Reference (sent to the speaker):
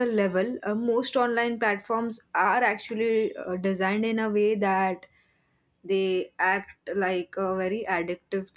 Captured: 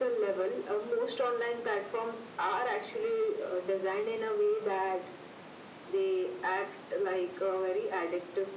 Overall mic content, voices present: echo only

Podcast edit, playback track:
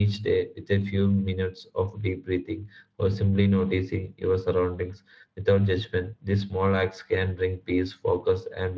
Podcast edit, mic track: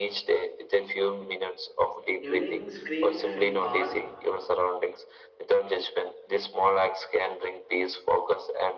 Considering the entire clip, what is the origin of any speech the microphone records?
both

